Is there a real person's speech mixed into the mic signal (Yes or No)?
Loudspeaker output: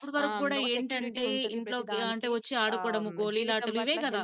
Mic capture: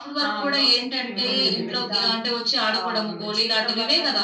Yes